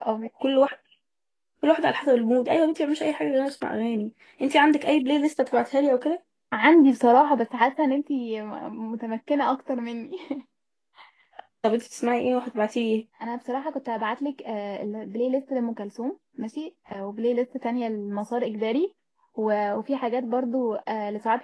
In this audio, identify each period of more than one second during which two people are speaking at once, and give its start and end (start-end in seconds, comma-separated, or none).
none